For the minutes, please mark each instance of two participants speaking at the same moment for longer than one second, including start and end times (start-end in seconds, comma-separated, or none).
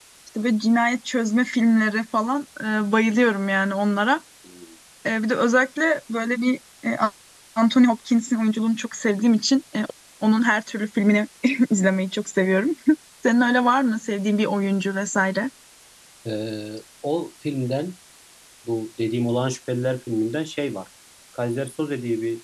none